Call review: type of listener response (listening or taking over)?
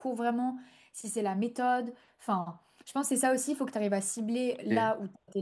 listening